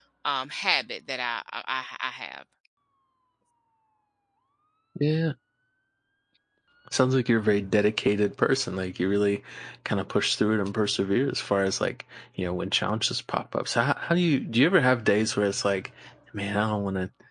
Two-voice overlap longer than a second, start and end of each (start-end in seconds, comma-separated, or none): none